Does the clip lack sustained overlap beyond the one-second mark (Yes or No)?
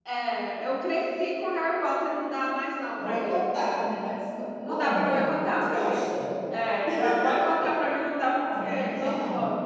No